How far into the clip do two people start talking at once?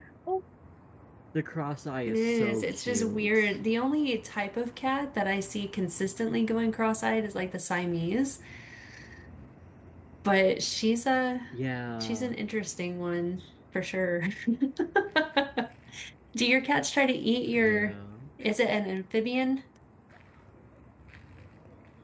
2 s

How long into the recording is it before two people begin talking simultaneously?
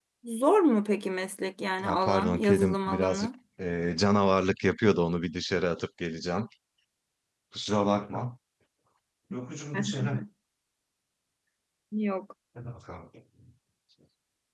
2 s

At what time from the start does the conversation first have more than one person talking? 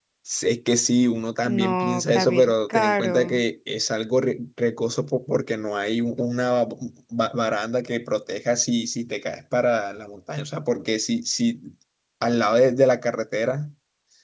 1 s

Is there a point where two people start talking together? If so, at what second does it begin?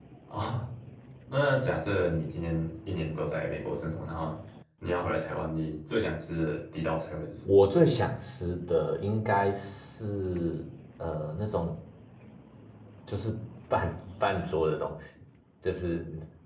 none

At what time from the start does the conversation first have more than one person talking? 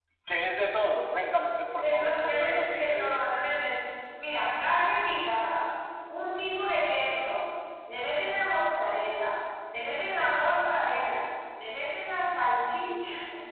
2 s

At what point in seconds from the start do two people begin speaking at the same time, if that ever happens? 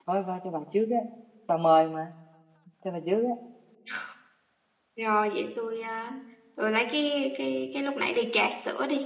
none

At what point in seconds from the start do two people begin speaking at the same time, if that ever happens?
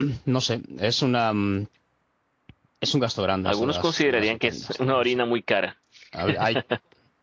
3 s

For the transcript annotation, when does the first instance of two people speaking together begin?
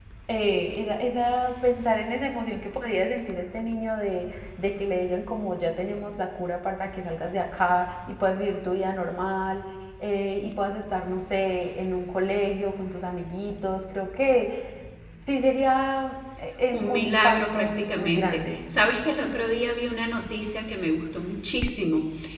17 s

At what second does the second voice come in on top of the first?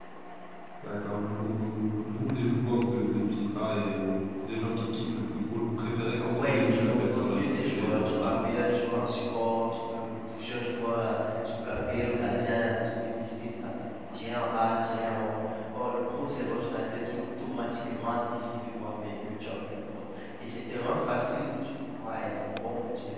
6 s

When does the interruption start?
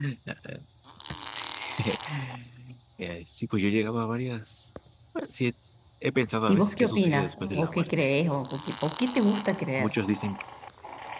6 s

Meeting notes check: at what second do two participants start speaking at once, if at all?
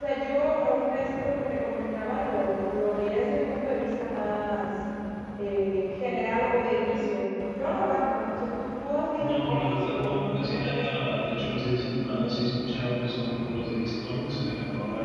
9 s

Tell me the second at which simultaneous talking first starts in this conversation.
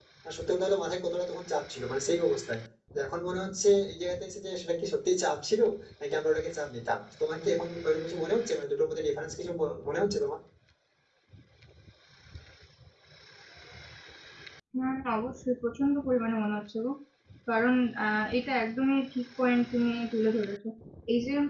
none

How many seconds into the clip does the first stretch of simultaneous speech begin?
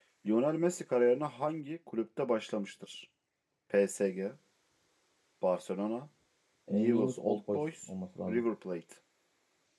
7 s

